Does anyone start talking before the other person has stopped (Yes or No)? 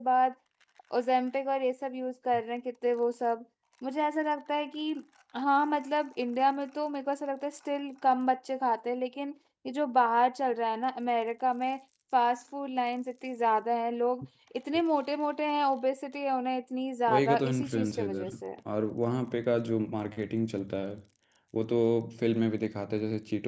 Yes